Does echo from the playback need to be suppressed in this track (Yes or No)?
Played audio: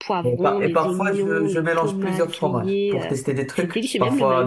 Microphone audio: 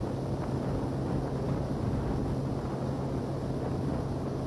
No